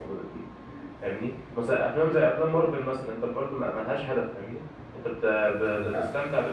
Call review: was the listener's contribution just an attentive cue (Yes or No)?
Yes